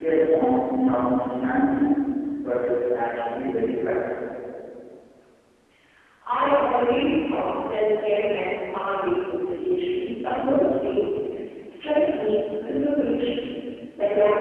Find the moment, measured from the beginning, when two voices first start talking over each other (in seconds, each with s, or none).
none